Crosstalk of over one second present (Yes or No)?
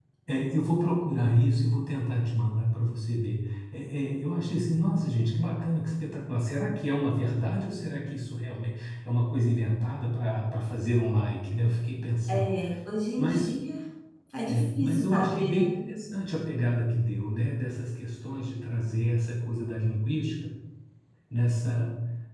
Yes